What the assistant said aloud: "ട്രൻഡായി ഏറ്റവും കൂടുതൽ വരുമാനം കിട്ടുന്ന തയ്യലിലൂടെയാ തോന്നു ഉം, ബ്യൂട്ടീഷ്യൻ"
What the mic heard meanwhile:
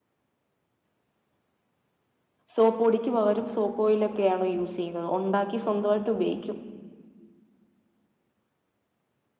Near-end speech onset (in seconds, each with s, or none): 2.5 s